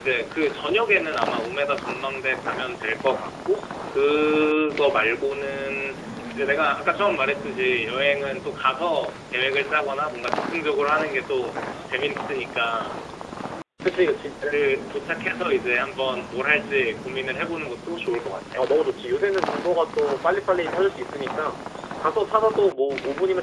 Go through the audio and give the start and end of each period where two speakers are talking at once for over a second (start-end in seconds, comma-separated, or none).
none